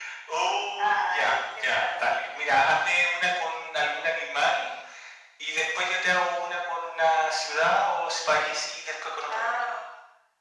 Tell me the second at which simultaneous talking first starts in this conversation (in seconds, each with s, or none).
0.8 s